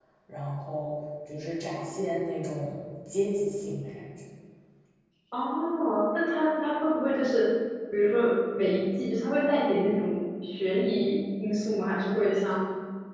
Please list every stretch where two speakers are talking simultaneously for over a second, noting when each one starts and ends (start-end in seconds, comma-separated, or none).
none